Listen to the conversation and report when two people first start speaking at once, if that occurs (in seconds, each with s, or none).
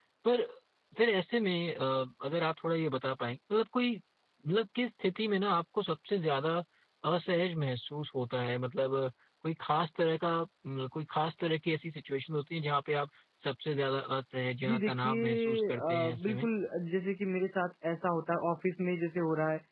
14.6 s